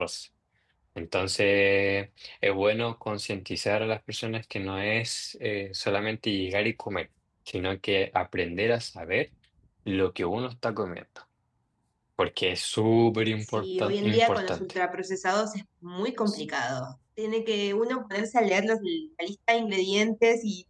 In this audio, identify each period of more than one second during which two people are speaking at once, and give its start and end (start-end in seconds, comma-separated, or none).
13.4-14.8